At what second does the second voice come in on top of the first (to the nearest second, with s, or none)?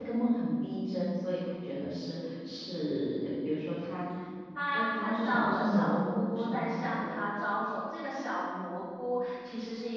5 s